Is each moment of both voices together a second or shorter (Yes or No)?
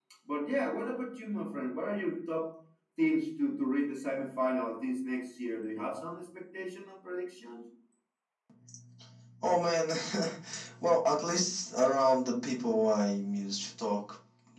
Yes